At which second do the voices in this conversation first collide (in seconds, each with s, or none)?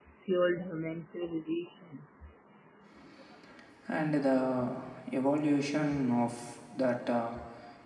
none